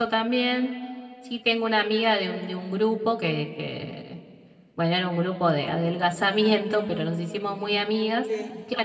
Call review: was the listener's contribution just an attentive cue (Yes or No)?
Yes